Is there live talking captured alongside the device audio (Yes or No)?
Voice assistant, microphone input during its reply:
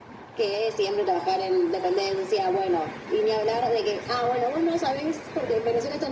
No